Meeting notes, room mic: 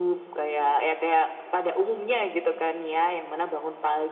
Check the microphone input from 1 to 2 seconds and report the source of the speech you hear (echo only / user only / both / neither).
echo only